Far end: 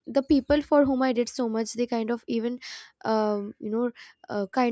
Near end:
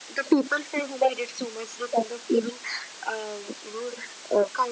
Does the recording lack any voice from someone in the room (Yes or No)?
Yes